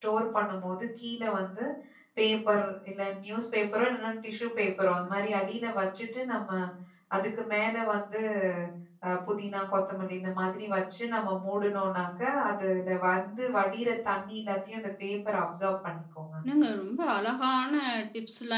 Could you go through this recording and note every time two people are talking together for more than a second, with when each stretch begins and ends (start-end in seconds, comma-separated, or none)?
none